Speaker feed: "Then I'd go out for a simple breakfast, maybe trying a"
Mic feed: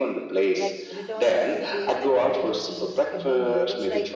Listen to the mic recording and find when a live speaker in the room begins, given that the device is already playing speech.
0.5 s

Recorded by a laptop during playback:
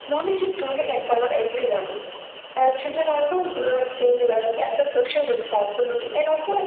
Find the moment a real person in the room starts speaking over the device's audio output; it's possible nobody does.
none

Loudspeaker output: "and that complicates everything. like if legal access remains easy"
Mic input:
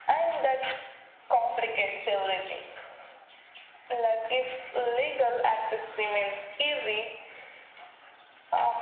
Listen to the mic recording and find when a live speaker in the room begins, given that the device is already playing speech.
none

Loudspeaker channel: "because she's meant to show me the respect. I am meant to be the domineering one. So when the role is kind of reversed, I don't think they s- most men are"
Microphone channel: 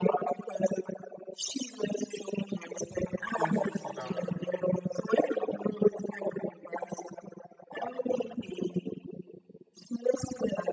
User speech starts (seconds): 3.3 s

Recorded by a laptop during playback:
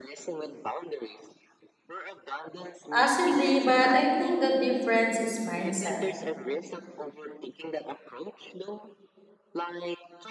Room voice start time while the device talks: 2.9 s

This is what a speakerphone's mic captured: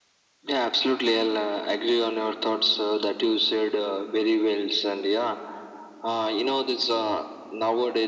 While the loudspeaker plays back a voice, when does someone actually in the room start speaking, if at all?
none

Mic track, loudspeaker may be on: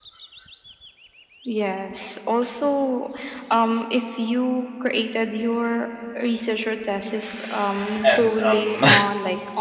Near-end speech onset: 8.1 s

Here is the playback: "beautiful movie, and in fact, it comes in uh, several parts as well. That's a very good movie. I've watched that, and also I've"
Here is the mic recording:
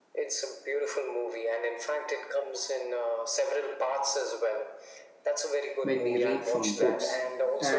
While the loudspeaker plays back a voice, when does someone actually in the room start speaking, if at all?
5.8 s

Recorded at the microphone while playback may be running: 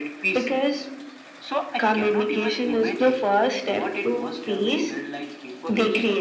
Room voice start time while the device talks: none

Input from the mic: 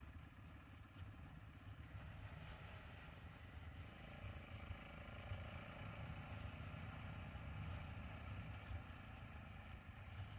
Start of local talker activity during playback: none

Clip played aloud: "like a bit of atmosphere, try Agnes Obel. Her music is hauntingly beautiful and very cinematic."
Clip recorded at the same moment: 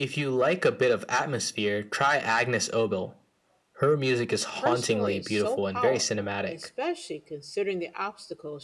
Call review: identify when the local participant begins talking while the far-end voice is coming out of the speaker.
4.6 s

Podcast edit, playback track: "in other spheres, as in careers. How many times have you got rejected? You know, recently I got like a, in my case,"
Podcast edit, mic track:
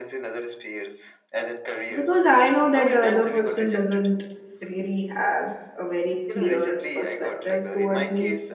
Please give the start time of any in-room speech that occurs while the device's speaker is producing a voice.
1.9 s

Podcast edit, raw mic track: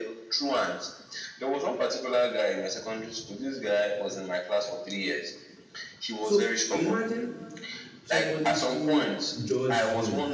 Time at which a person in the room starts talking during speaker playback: 6.2 s

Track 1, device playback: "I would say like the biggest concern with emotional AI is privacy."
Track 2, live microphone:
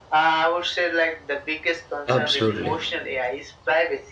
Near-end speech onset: 2.1 s

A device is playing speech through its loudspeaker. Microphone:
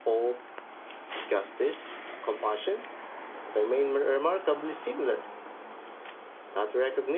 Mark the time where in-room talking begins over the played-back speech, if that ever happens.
none

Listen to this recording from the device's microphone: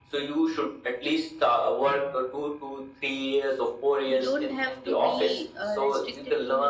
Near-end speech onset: 4.1 s

